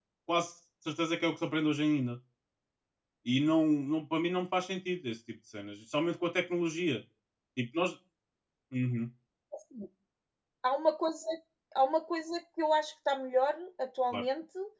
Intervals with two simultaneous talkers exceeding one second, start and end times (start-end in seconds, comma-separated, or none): none